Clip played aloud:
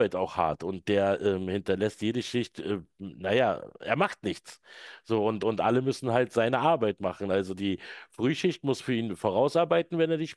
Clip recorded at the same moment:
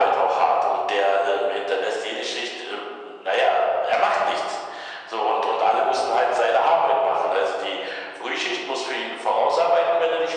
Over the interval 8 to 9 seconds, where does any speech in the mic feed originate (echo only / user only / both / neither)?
echo only